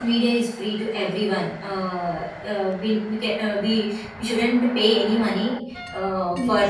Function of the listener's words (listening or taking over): listening